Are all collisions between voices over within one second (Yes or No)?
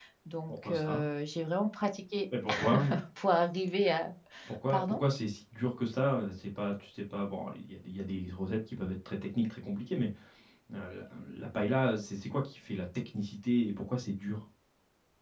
Yes